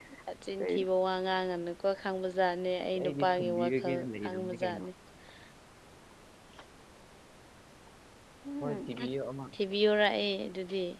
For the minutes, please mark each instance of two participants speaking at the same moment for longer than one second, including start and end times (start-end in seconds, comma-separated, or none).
3.0-4.8